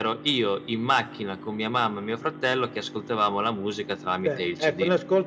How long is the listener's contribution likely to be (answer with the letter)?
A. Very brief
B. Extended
B